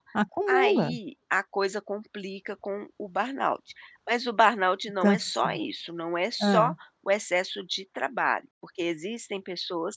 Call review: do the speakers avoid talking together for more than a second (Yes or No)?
Yes